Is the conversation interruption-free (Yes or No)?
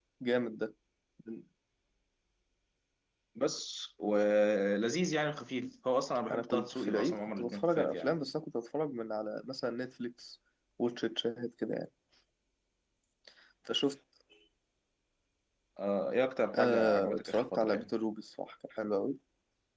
No